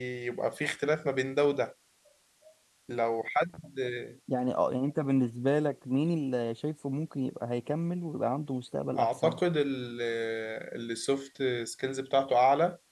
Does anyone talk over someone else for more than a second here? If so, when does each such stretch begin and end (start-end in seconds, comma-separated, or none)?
none